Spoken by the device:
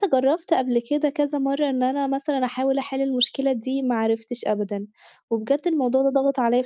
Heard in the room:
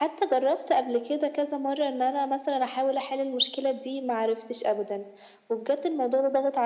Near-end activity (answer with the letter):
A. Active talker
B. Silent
B